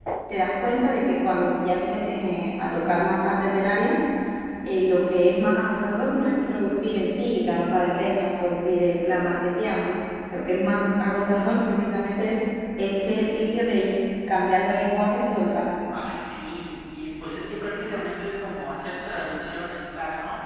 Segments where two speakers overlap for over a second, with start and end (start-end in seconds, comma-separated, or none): none